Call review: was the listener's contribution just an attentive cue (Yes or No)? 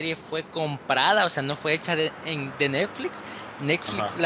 Yes